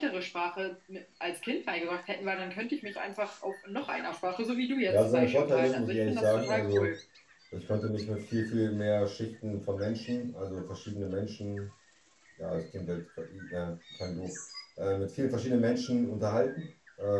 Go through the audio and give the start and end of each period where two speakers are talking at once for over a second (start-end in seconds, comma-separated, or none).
4.9-7.0